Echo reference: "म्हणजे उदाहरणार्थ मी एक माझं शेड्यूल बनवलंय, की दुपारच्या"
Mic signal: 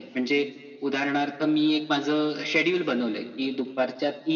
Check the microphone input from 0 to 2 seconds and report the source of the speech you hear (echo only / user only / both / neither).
echo only